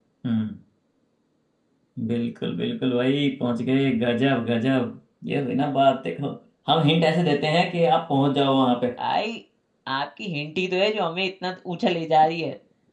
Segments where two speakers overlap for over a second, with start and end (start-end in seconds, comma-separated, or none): none